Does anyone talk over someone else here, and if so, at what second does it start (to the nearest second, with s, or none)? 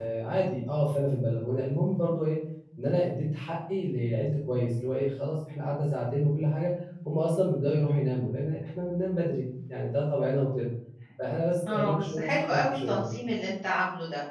12 s